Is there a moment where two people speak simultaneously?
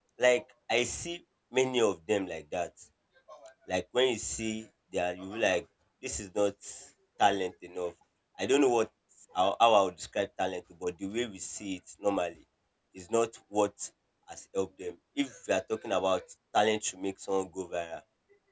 No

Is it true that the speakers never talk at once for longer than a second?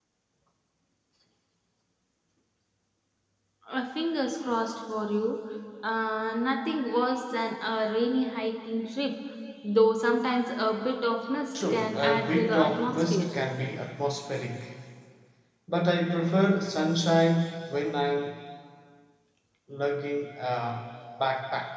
No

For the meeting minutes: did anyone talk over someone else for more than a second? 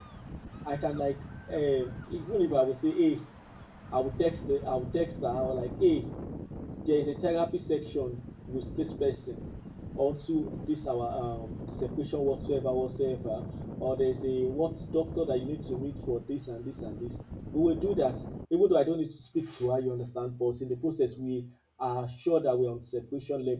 No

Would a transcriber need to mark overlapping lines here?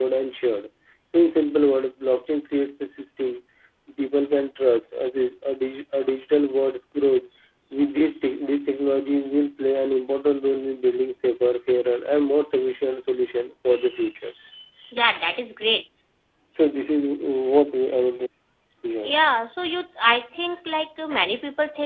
No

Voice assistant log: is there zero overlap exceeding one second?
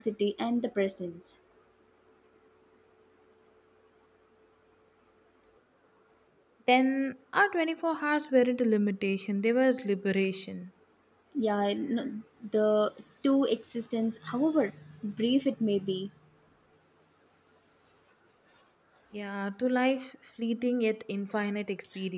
Yes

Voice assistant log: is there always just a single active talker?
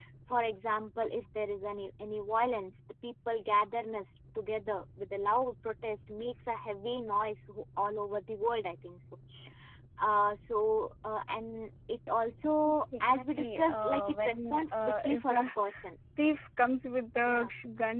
No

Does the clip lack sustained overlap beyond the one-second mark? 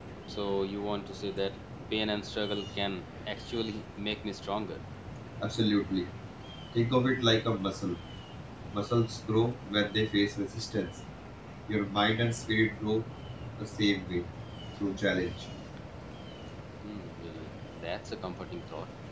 Yes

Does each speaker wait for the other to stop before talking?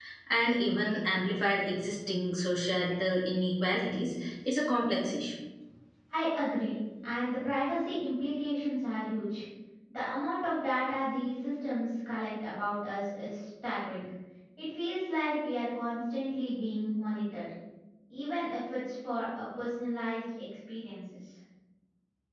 Yes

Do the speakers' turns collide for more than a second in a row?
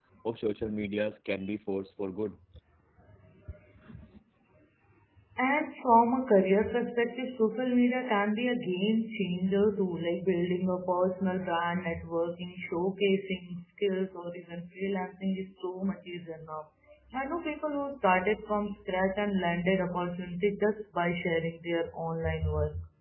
No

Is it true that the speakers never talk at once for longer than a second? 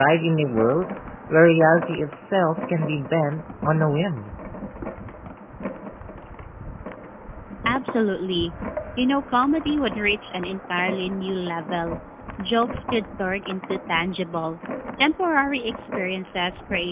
Yes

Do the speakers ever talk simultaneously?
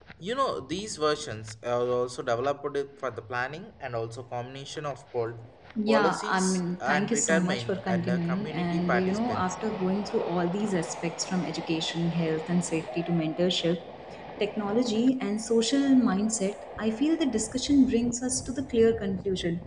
Yes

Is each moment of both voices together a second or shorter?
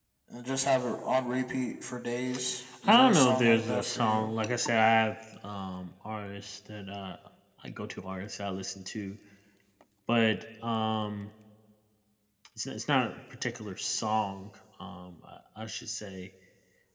No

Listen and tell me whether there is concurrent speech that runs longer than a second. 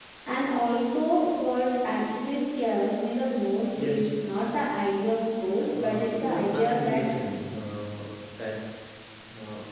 Yes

